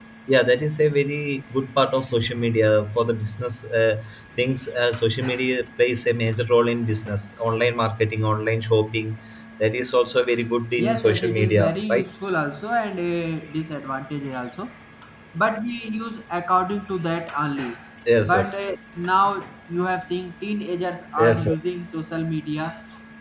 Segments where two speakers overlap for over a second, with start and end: 10.8-12.1

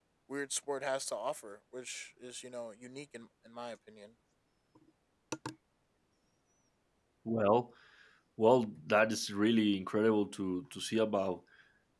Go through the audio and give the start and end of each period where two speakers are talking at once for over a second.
none

